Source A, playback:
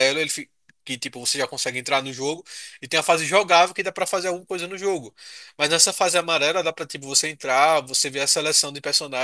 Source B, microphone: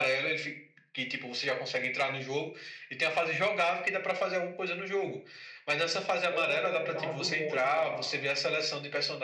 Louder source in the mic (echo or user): echo